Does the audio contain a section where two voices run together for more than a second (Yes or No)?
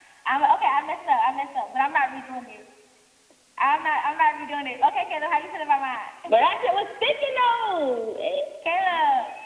No